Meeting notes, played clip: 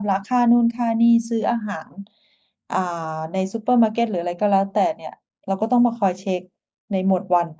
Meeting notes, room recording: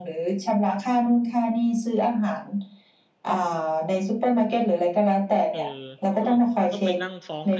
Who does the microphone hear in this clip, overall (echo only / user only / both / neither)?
both